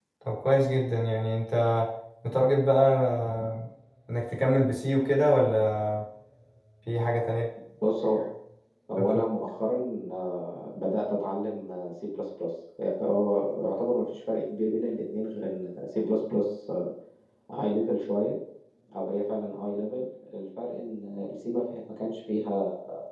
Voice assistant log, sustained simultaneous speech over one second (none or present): none